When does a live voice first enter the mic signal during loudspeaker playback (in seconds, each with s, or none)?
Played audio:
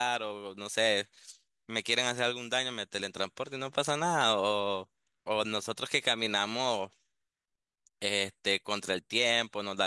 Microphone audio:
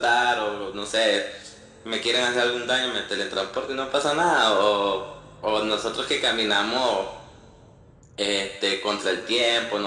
none